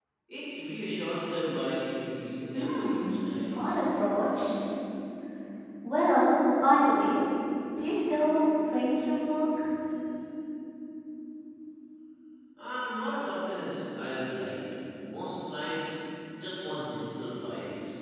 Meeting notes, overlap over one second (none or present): present